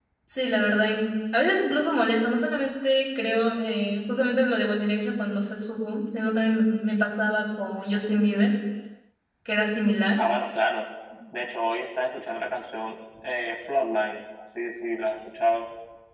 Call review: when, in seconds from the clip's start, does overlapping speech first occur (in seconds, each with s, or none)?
none